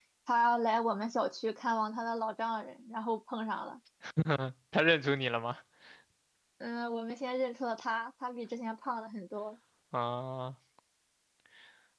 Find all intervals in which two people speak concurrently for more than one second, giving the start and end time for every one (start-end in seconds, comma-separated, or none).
none